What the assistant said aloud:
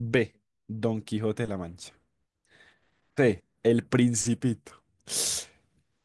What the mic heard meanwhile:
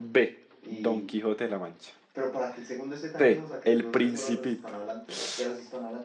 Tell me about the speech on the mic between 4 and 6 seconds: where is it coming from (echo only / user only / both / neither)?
both